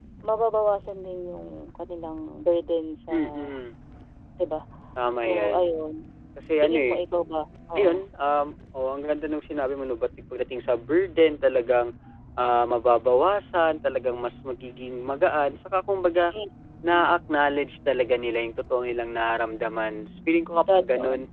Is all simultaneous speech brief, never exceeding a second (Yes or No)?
Yes